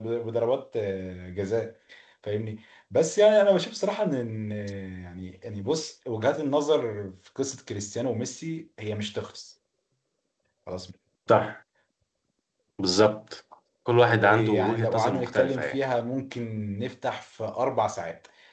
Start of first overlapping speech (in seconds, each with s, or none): 14.0 s